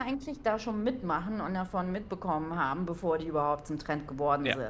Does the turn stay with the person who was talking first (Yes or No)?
Yes